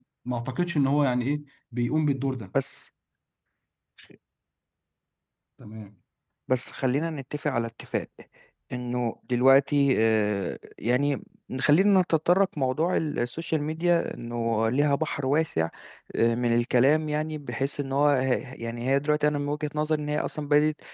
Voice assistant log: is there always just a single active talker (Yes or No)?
Yes